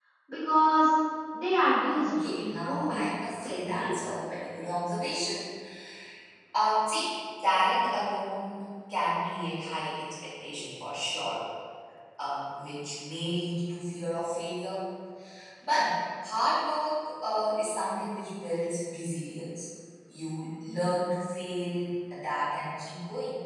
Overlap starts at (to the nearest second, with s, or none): 2 s